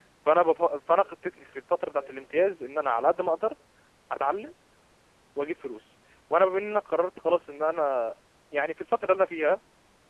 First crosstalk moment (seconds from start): none

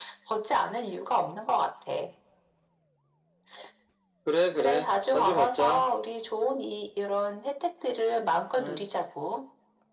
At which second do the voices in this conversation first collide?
5 s

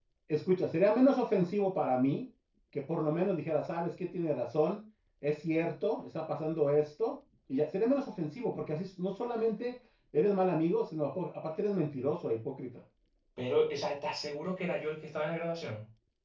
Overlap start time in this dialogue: none

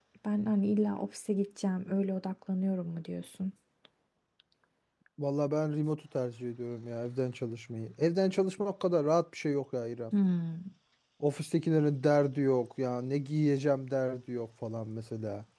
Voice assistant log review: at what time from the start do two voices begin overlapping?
none

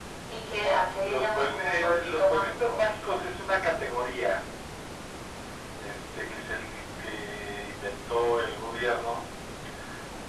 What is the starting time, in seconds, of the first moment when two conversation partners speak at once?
1 s

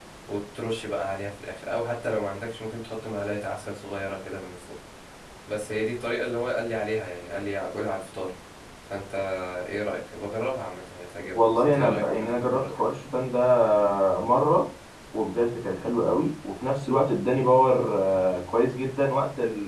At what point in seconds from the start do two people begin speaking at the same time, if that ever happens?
11 s

